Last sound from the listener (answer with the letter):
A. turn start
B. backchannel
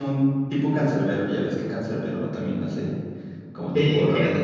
A